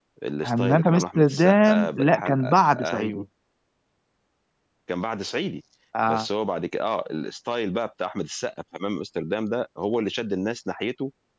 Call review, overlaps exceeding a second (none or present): present